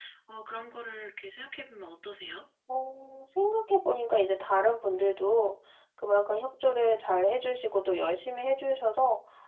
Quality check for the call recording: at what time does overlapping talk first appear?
none

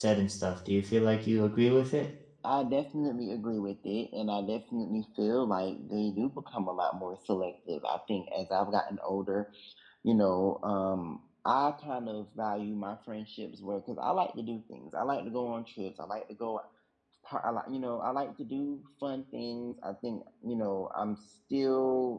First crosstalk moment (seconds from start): none

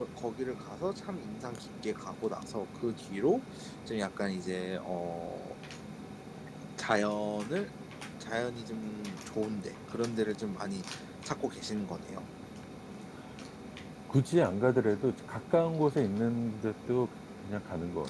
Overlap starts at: none

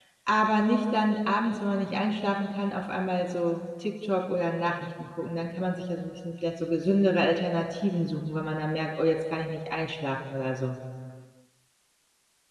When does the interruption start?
none

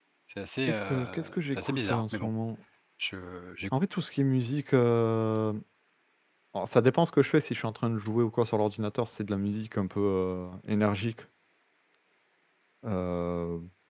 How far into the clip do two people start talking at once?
0.7 s

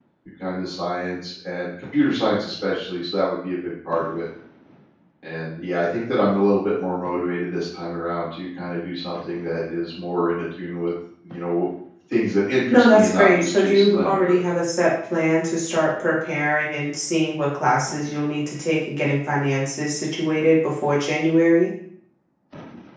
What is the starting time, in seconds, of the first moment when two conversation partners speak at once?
12.7 s

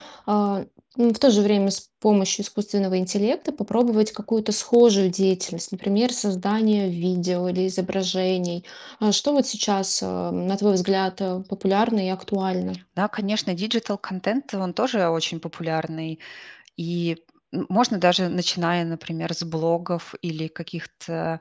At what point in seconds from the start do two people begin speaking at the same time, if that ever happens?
none

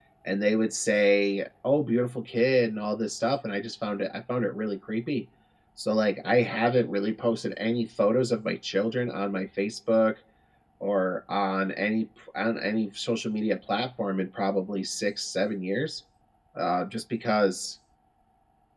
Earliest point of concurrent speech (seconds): none

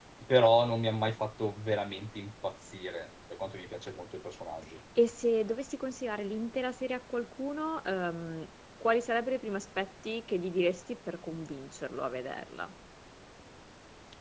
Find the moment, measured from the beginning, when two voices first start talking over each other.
none

